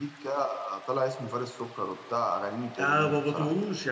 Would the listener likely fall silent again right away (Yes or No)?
No